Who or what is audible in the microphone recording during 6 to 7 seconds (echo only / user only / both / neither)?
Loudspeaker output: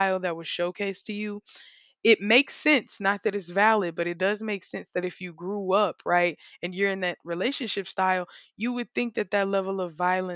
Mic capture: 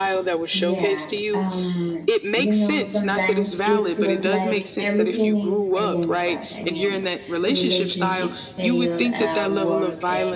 both